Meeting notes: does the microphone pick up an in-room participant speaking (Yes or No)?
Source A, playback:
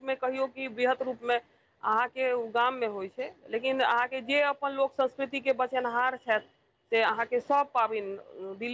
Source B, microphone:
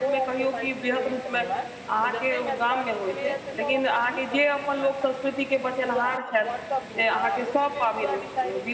Yes